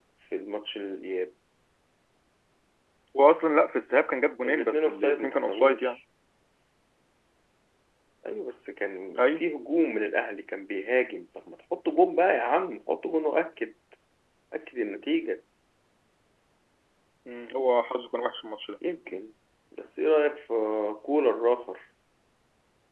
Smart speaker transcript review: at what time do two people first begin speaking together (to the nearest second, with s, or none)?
4 s